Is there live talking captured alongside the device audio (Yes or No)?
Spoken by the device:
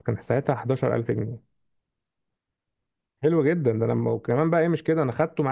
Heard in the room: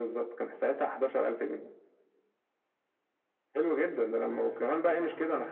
Yes